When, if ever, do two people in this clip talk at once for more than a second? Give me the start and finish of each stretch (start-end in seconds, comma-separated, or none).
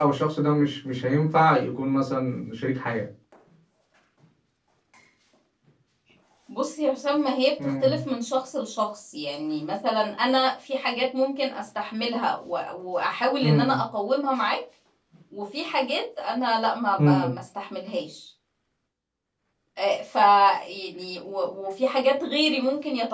none